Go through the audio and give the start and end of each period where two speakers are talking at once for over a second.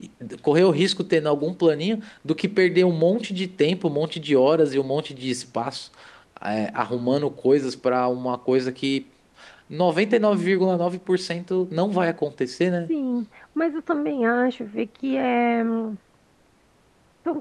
none

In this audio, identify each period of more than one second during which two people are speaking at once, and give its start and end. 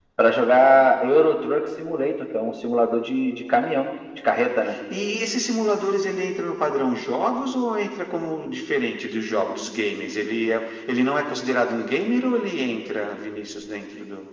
none

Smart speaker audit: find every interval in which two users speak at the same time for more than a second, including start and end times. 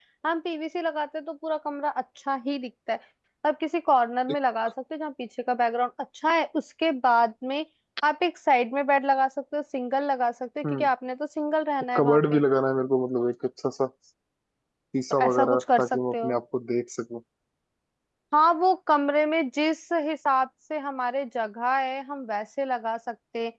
15.1-16.3

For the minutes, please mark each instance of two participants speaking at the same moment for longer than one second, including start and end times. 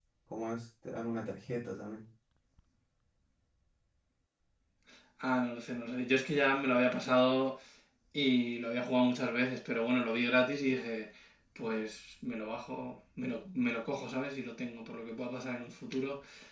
none

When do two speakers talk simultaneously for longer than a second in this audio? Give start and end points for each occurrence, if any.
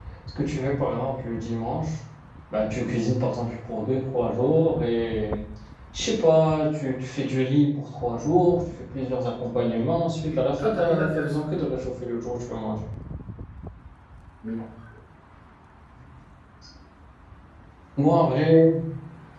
10.3-11.7

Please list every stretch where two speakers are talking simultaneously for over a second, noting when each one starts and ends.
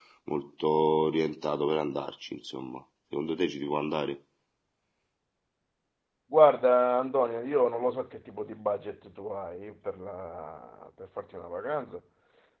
none

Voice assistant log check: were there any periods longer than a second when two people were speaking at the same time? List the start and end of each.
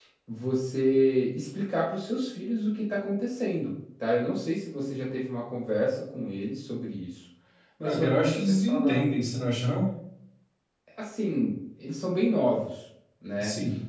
7.8-9.1

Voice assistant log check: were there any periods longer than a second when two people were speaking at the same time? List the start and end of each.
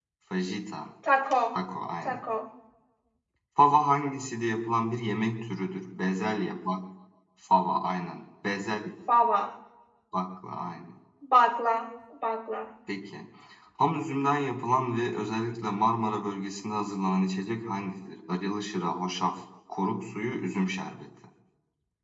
none

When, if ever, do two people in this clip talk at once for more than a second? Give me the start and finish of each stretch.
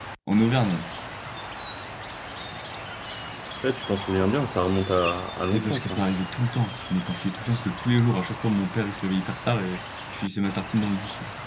none

